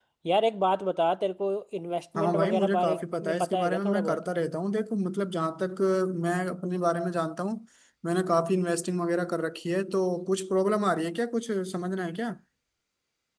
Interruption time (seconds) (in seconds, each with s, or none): 2.2 s